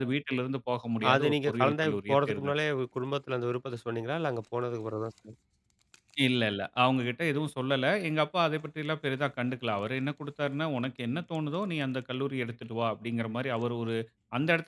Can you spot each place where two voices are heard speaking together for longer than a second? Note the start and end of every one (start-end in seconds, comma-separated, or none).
1.1-2.5